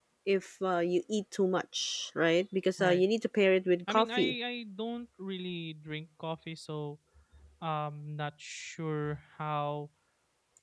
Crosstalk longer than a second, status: none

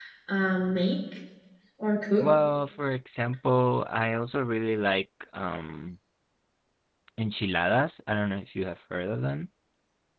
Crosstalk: none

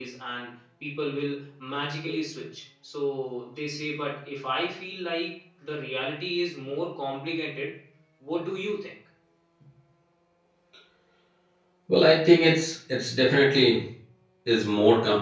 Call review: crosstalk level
none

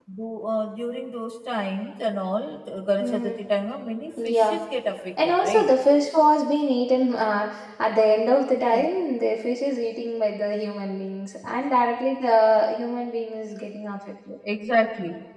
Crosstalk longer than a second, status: none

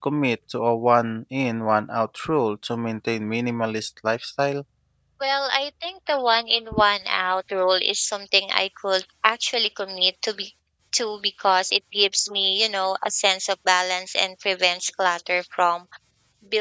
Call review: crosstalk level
none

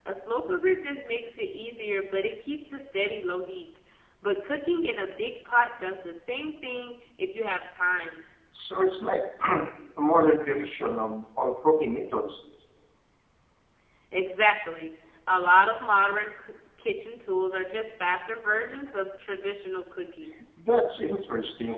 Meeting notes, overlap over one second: none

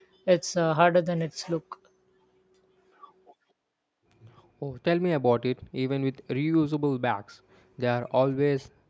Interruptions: none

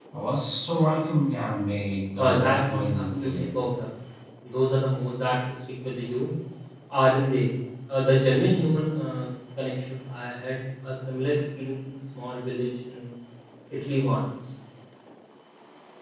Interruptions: present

